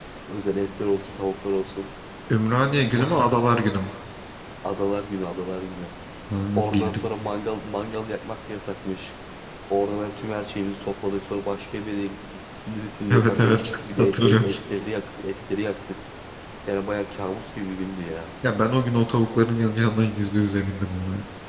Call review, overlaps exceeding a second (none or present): present